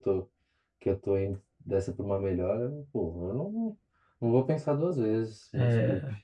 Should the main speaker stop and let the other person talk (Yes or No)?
Yes